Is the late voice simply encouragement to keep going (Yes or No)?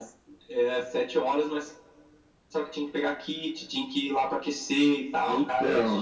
No